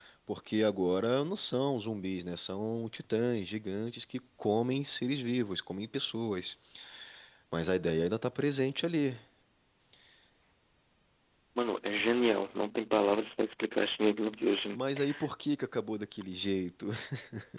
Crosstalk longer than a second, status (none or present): none